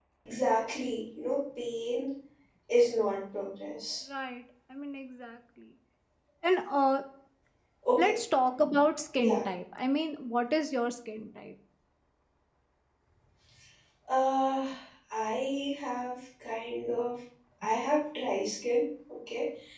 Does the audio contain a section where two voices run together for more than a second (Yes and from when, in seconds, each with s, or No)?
No